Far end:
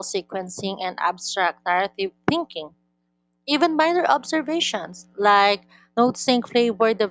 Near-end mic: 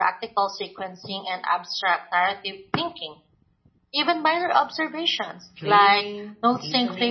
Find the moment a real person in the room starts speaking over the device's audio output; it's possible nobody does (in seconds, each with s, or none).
5.6 s